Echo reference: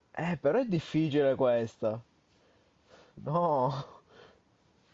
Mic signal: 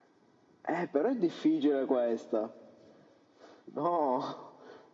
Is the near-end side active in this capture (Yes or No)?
No